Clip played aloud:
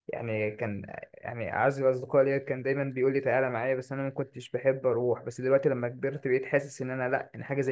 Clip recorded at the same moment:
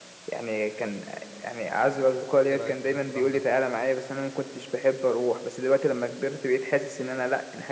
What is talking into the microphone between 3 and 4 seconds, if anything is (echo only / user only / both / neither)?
both